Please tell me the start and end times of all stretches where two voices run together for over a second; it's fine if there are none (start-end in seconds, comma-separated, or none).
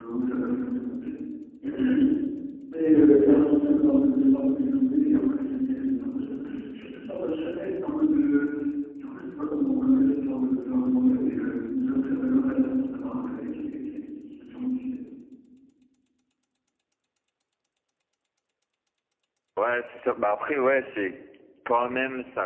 none